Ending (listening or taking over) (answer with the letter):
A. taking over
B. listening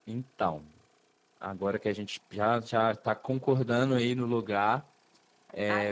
A